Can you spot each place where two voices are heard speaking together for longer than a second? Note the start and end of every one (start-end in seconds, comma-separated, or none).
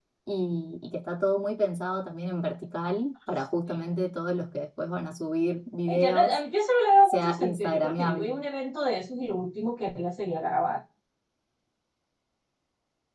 7.0-8.4